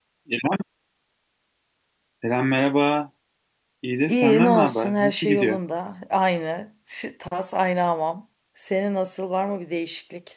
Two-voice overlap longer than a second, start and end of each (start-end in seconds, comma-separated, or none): 4.1-5.6